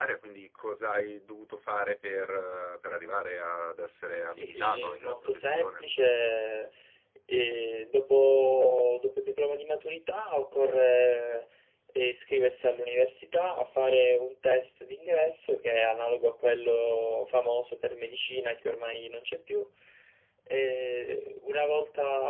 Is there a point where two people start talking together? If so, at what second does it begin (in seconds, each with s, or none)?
4.3 s